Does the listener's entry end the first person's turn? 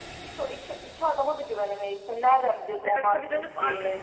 Yes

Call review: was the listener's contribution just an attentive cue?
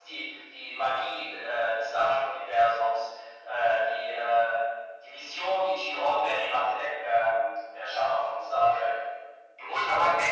No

